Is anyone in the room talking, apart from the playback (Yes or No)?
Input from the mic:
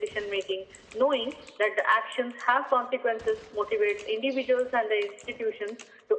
No